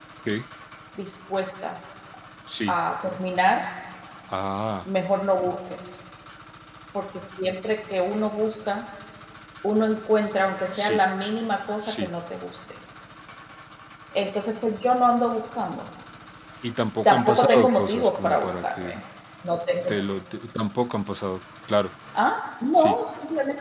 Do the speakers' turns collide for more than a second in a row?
Yes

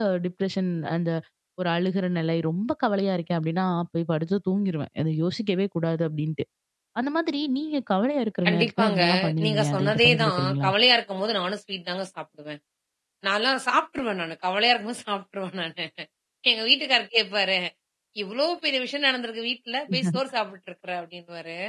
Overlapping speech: Yes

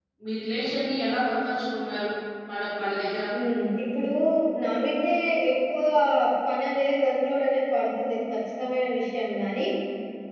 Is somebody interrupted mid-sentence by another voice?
No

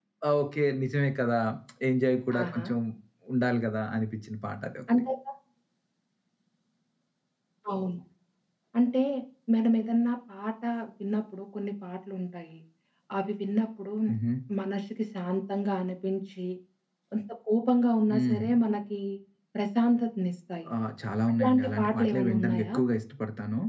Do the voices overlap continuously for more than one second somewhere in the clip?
Yes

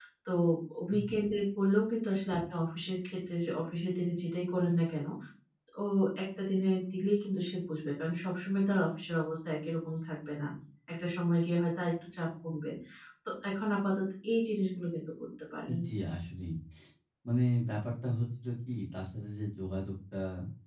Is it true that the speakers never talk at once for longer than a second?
Yes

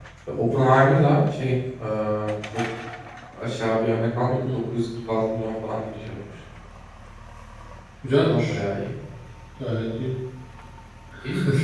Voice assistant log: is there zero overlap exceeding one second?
Yes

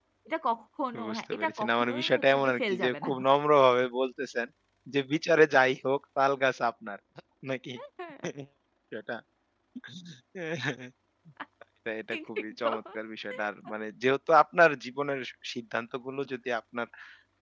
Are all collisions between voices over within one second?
No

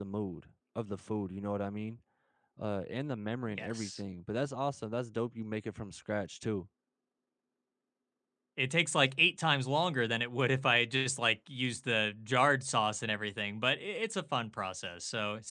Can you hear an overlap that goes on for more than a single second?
No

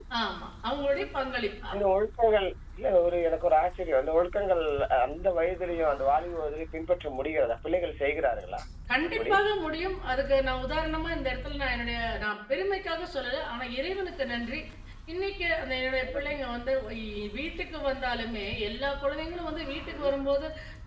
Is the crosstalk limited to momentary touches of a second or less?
Yes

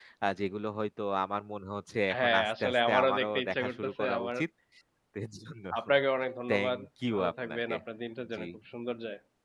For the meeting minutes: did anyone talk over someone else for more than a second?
Yes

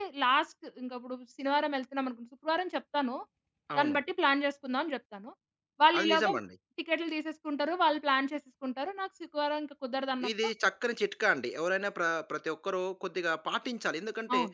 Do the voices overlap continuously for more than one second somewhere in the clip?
No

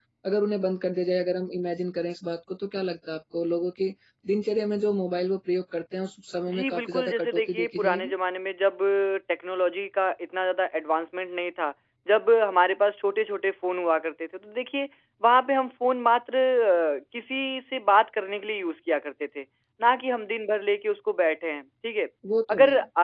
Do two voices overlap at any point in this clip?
Yes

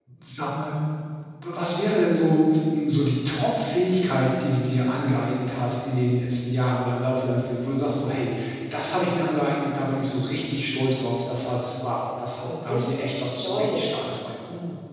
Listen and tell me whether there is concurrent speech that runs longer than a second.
Yes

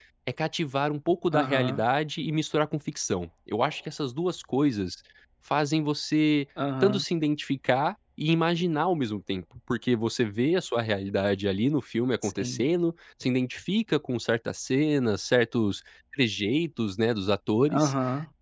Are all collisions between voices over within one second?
Yes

